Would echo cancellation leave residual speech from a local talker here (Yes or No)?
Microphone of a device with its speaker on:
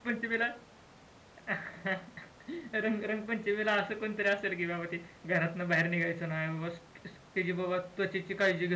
Yes